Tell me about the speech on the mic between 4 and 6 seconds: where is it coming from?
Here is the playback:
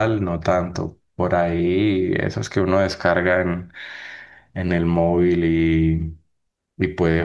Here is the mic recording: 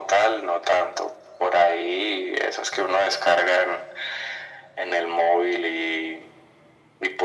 echo only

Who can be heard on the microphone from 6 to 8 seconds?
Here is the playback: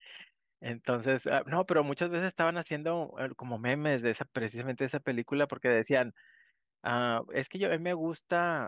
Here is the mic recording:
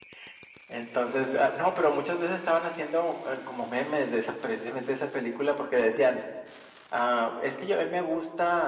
echo only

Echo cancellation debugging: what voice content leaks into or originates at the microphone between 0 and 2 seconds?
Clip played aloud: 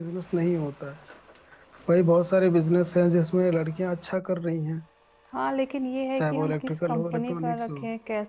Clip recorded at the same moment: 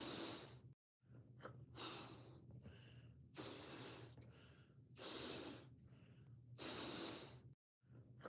neither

